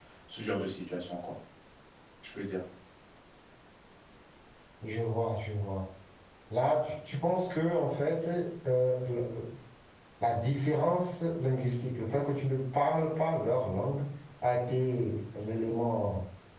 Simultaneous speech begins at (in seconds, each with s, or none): none